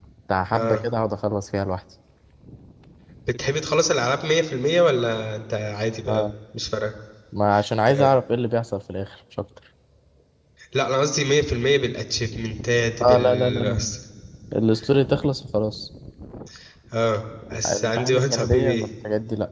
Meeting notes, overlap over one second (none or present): present